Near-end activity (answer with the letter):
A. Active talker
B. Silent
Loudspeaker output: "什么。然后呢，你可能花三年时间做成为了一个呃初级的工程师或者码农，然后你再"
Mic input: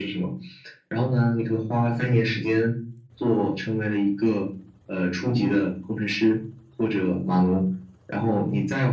B